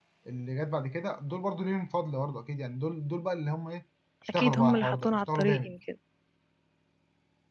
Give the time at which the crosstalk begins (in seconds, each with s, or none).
4.3 s